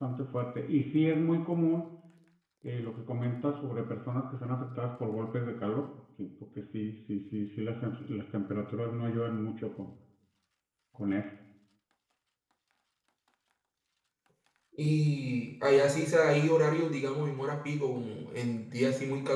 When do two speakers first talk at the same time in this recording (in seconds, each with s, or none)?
none